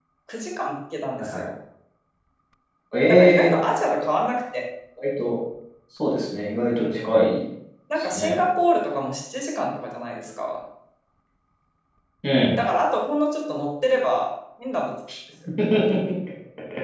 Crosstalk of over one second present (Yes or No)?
No